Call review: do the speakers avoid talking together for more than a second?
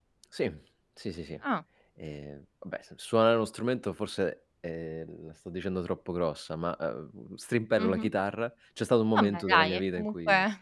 No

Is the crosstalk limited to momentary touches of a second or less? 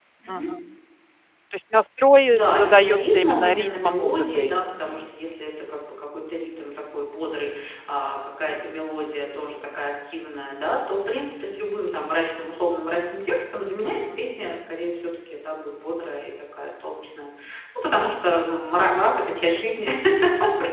No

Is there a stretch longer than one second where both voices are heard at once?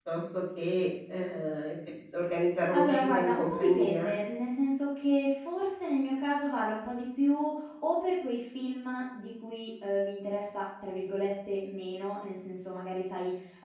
Yes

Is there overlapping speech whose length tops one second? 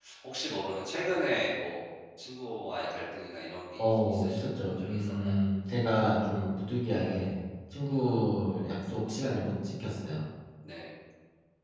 Yes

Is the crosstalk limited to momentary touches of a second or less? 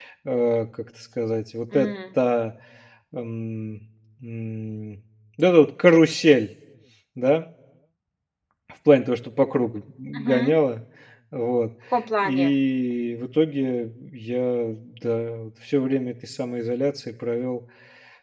Yes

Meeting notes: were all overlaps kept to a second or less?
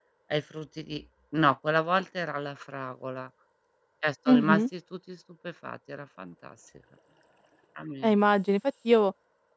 Yes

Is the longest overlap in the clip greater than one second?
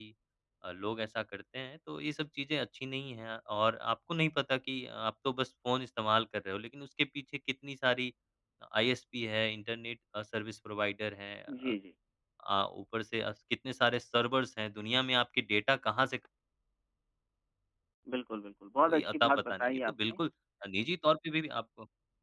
Yes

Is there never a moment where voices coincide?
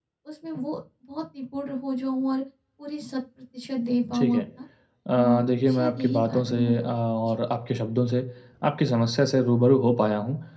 No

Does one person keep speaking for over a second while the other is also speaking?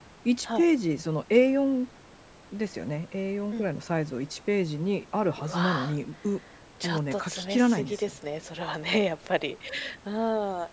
Yes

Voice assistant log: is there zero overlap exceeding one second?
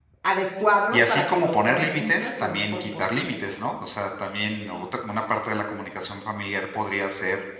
No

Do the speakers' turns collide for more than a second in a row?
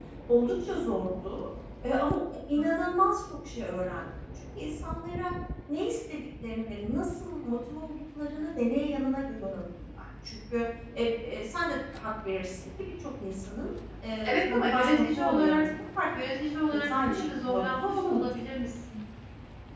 Yes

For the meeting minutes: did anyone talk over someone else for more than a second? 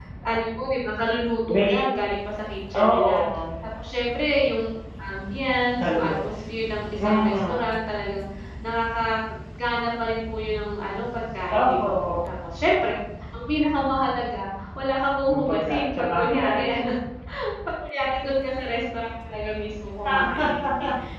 Yes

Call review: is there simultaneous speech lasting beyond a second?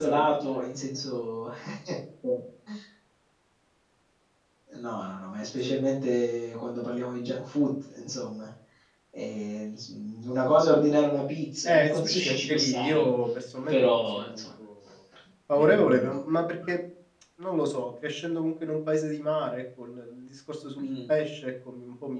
Yes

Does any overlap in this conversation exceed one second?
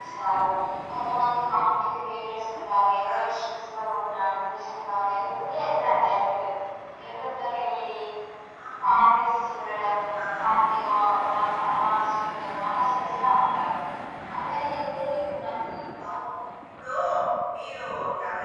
No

